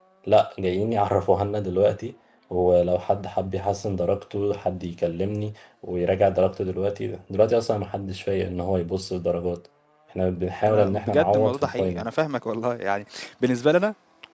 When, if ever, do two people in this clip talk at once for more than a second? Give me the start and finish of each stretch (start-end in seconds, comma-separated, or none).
10.6-12.1